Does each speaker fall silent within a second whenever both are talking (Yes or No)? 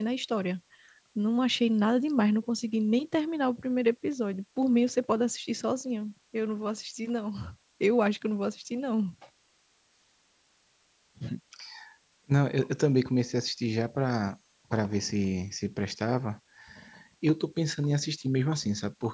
Yes